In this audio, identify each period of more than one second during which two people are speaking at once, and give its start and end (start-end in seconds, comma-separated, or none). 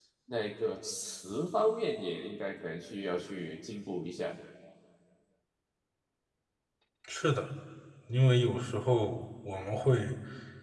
none